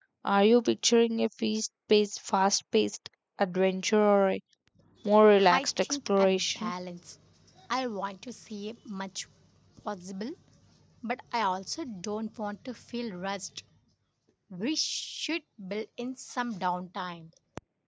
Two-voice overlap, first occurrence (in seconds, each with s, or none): 5.5 s